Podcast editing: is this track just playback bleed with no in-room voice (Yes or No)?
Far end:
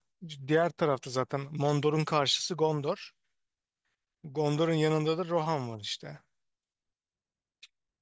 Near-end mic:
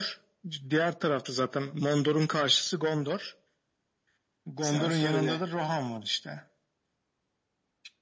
No